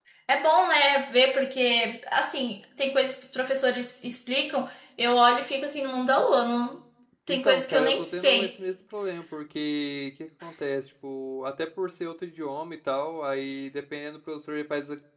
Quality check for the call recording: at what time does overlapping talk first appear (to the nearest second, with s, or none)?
7 s